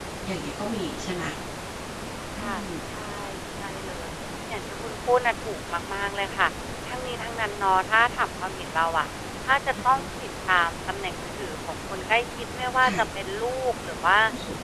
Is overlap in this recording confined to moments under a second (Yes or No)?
Yes